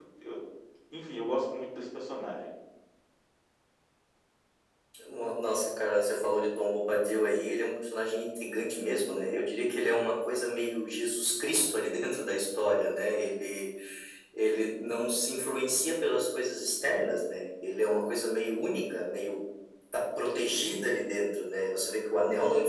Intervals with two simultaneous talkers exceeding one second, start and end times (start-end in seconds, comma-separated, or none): none